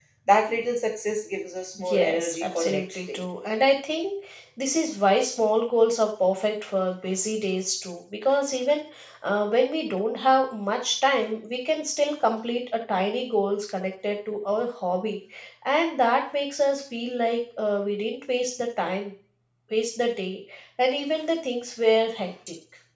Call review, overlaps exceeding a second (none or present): present